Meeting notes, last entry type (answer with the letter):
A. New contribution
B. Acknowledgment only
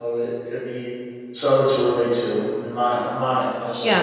A